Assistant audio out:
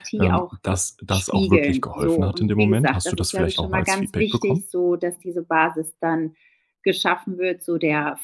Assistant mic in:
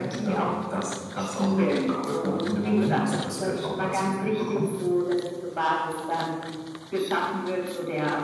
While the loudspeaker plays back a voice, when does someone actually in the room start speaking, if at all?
none

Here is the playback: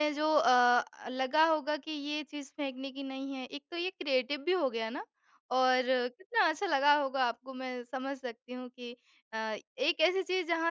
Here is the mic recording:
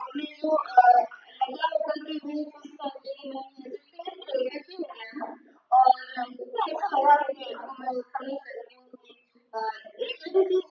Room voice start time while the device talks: none

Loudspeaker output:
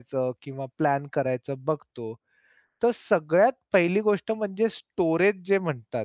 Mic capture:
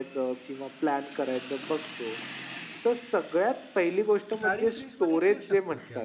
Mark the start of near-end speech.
4.4 s

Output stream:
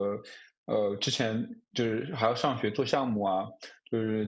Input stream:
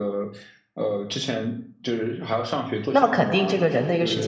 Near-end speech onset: 2.9 s

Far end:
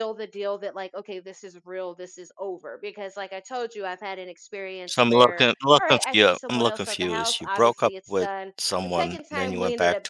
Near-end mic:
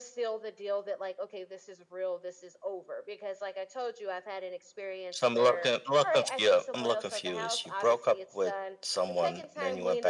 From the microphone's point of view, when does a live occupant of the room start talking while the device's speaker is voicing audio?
none

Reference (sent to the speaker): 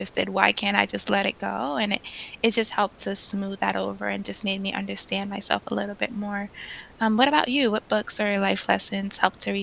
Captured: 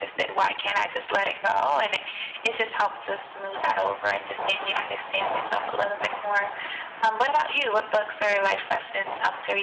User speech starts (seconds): none

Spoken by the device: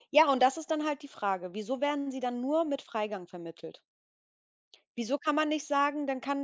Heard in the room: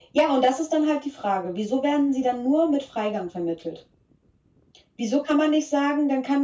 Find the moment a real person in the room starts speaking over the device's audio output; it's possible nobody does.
none

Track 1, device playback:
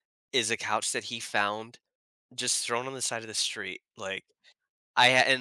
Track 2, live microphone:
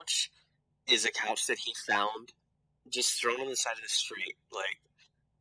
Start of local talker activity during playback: none

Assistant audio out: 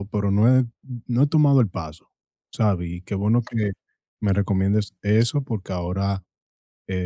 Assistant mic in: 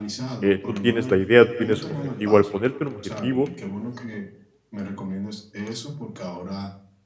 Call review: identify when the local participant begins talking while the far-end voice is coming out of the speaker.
0.4 s

